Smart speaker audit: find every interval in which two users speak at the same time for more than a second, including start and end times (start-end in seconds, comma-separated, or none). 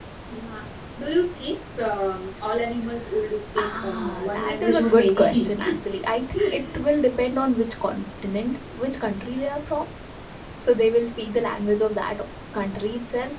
3.6-5.6